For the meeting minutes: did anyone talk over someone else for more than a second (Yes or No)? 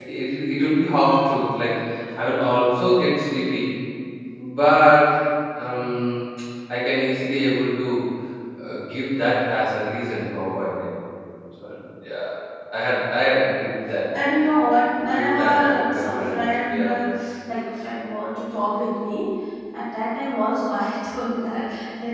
Yes